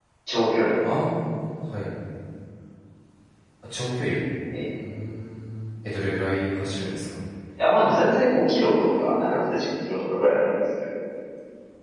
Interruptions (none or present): none